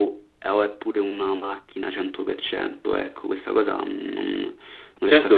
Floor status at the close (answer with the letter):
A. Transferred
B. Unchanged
A